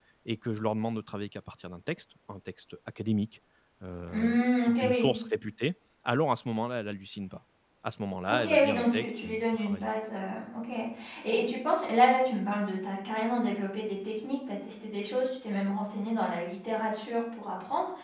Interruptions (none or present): present